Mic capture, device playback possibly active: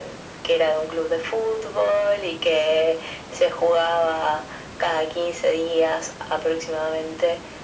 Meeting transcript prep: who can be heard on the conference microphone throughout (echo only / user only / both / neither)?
echo only